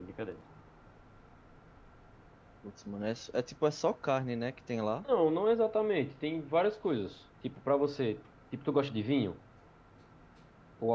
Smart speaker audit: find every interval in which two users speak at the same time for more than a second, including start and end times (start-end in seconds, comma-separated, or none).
none